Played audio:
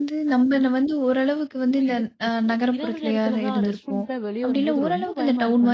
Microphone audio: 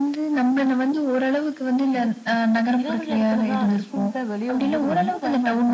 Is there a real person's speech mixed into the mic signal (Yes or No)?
No